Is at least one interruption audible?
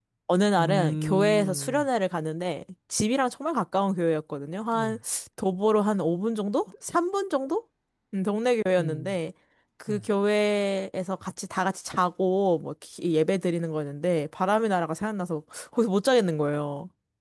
Yes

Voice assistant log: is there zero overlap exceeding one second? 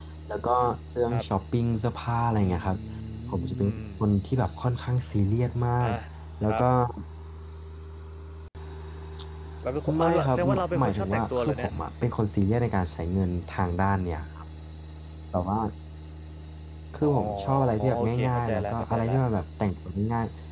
No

